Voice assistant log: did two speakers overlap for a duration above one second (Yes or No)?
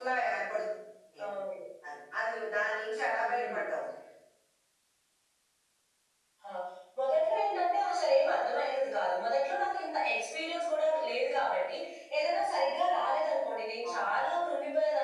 No